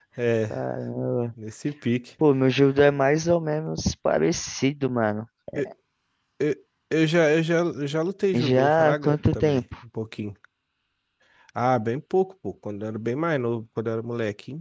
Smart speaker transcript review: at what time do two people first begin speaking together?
8 s

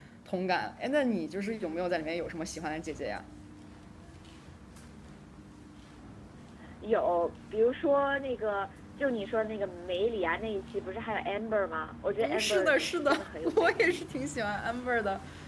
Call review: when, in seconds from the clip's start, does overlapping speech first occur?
12 s

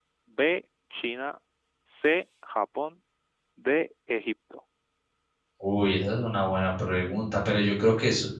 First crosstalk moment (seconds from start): none

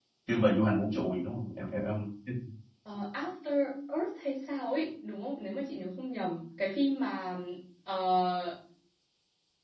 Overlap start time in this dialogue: none

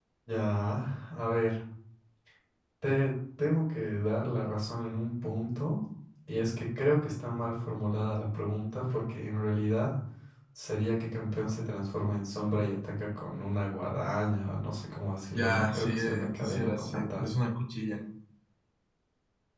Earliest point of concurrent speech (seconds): 15 s

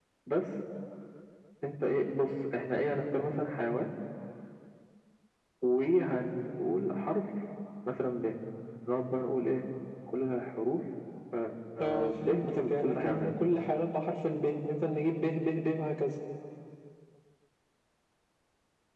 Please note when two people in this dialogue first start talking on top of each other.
12 s

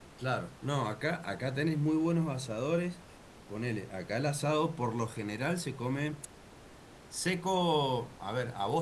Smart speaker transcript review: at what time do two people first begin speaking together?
none

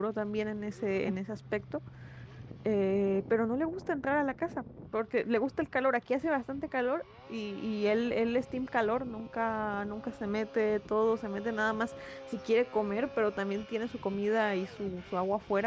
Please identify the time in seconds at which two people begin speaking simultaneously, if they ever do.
none

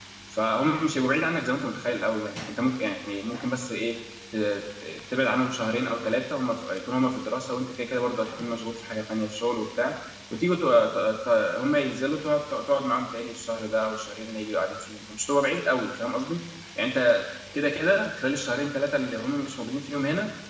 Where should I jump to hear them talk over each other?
none

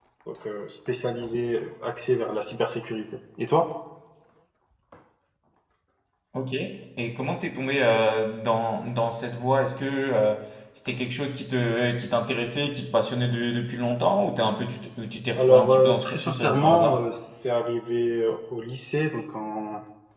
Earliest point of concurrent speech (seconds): 15 s

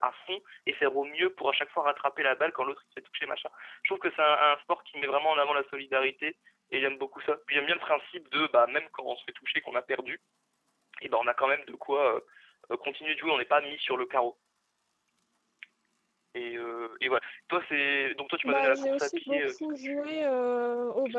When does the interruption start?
18 s

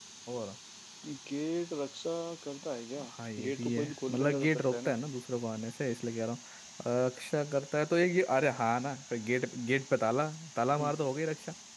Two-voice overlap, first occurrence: 3 s

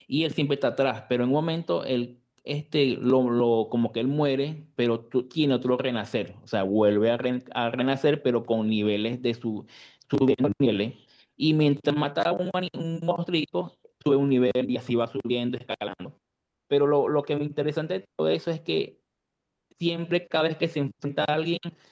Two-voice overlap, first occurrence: none

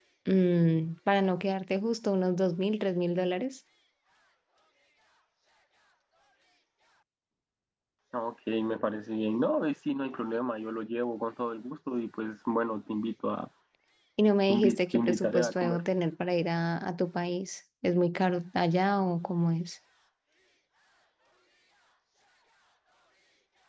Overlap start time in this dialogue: 15 s

